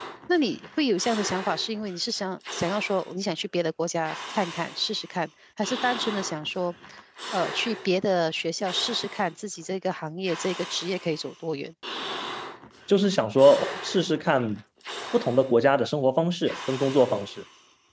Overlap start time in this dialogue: none

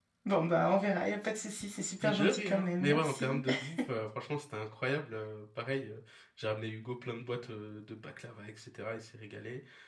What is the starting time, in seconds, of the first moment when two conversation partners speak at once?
2.0 s

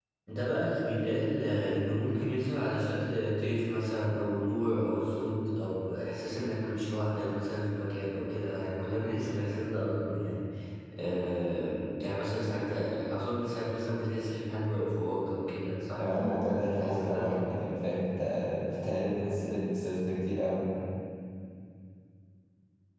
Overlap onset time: 16.0 s

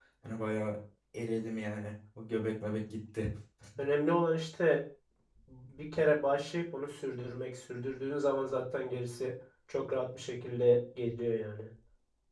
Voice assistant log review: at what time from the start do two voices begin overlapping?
none

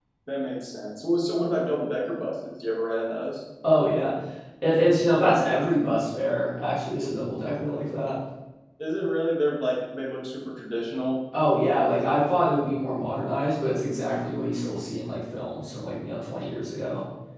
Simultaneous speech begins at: none

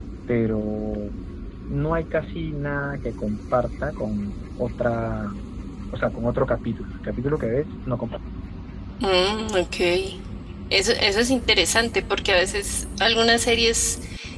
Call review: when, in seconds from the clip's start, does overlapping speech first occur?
none

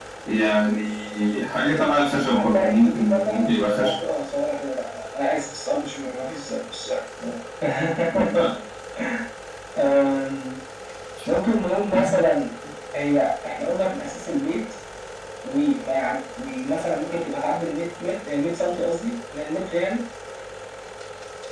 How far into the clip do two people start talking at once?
2.2 s

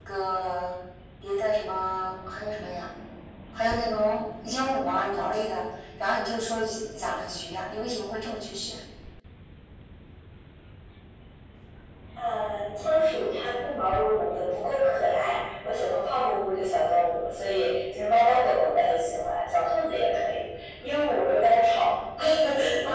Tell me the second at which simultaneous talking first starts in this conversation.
none

